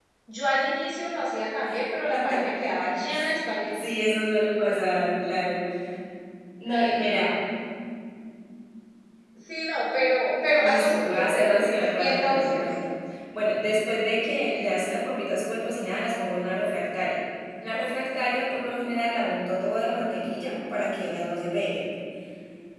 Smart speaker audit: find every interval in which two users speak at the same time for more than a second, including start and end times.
10.6-12.7

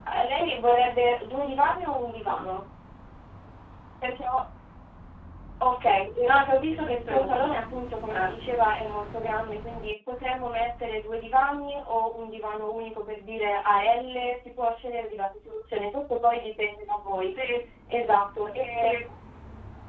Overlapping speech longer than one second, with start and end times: 6.2-7.6

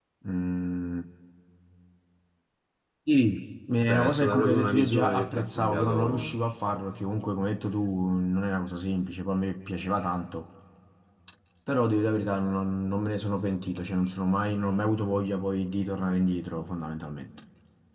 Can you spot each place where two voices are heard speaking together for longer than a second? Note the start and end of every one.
3.9-6.3

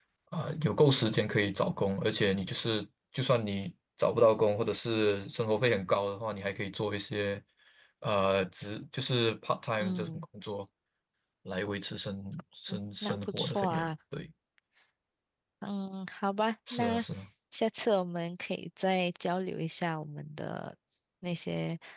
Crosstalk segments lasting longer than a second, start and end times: 12.7-13.9

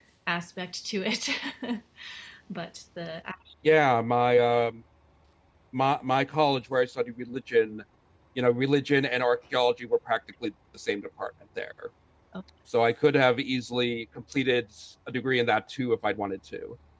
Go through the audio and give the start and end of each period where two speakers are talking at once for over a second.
none

